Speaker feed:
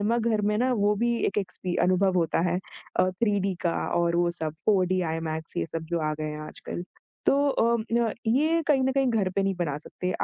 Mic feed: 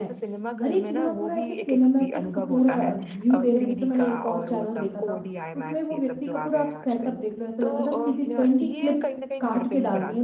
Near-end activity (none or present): present